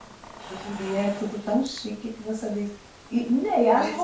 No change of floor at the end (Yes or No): Yes